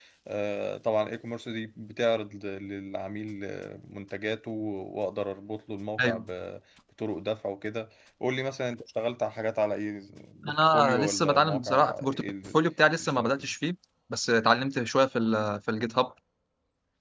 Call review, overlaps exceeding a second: present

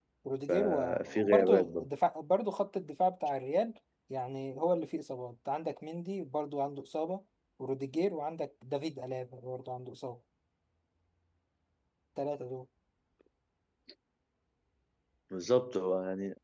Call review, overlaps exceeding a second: present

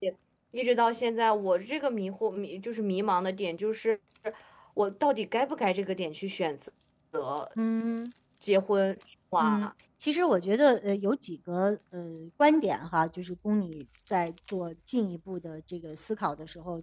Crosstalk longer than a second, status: none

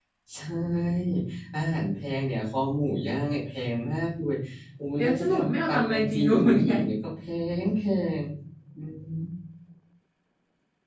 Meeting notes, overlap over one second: present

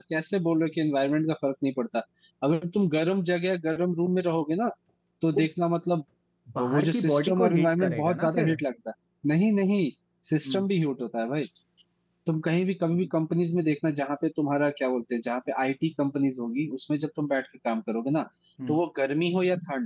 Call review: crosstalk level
present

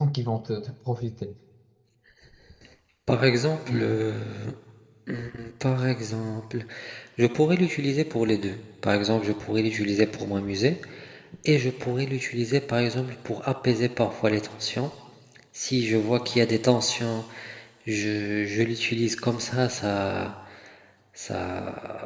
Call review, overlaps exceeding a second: none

